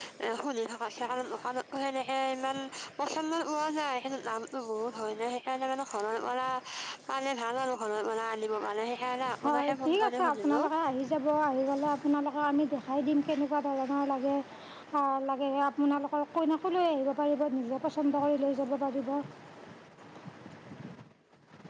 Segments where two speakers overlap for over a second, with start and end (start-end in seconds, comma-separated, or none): 9.4-10.7